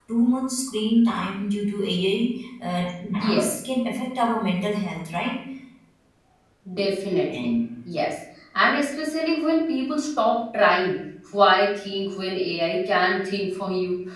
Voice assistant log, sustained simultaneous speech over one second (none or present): none